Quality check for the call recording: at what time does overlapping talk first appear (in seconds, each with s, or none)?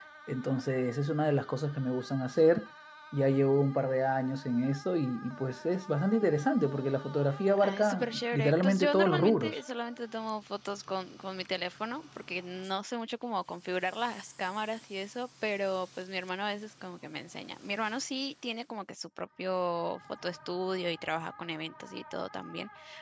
7.6 s